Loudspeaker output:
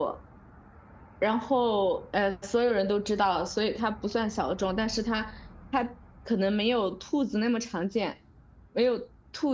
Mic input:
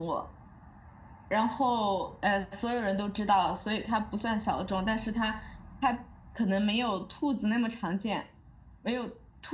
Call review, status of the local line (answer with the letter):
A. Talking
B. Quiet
B